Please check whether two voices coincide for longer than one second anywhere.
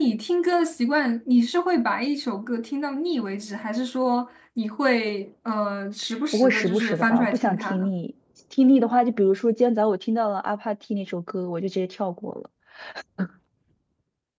Yes, from 6.3 s

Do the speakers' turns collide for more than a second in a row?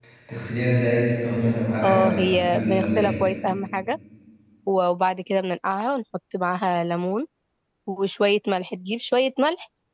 Yes, from 1.8 s

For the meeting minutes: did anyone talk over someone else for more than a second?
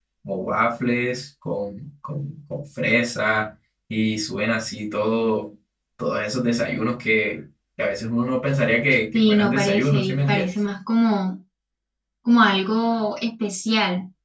Yes, from 9.1 s

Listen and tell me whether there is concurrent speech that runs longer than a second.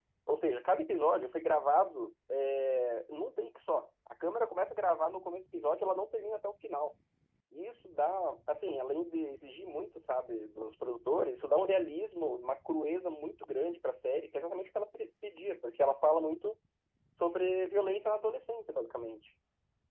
No

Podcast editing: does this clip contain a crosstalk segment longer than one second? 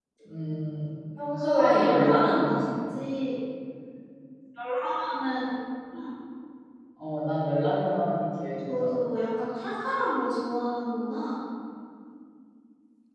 Yes, from 1.4 s

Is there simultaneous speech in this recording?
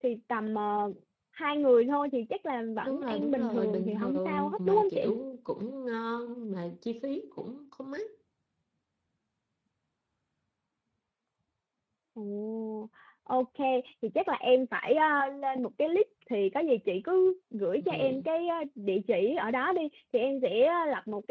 Yes, from 2.8 s

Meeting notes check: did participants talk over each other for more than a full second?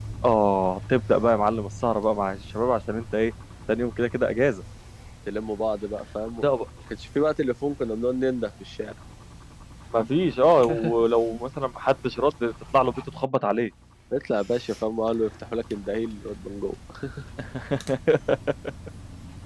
No

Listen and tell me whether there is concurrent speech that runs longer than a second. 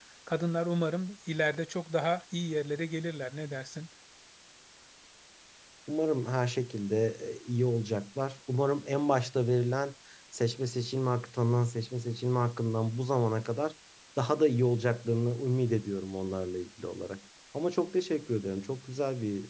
No

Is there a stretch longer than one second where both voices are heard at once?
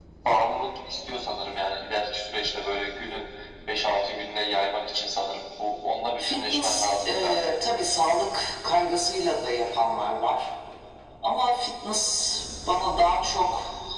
Yes, from 6.2 s

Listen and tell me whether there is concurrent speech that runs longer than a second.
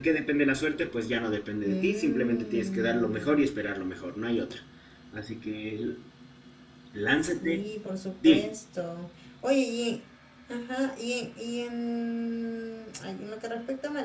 Yes, from 1.6 s

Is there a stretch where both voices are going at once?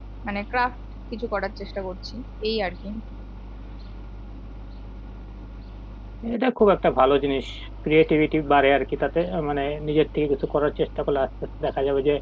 No

